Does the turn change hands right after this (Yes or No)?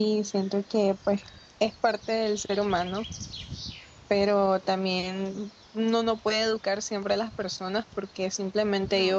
No